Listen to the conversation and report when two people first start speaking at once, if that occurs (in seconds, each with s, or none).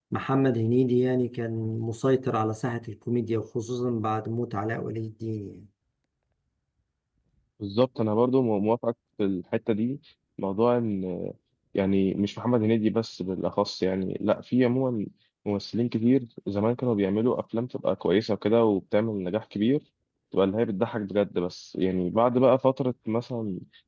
none